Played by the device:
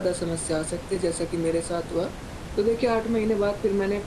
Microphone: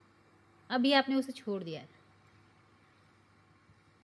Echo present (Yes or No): No